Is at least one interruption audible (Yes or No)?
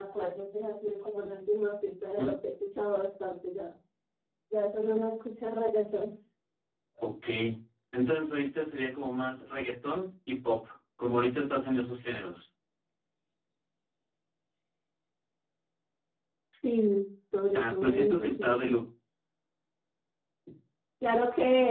Yes